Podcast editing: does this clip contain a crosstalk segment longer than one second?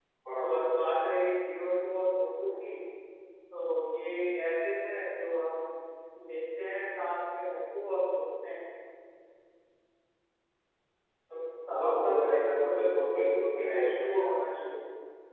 Yes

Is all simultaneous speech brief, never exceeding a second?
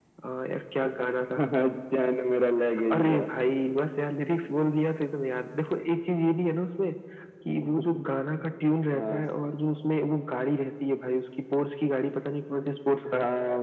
Yes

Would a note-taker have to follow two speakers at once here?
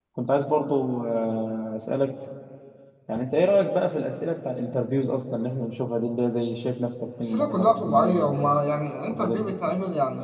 Yes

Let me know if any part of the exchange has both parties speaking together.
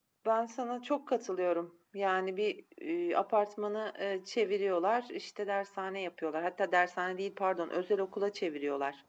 No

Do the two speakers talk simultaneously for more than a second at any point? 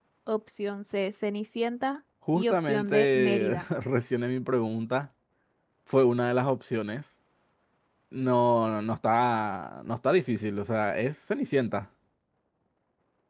Yes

